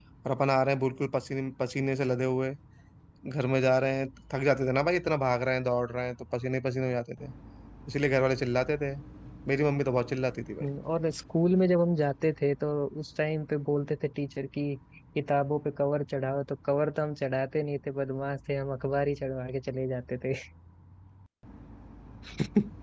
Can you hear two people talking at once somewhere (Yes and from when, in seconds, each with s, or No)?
No